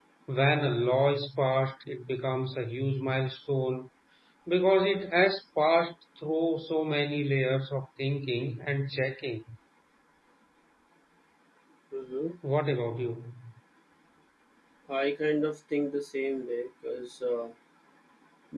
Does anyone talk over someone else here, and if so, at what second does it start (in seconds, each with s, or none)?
none